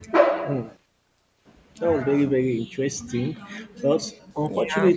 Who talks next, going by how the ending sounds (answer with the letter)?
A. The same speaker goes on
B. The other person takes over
A